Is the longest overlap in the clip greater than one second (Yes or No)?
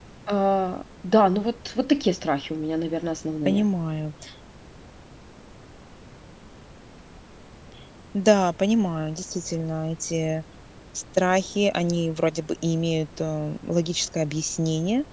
No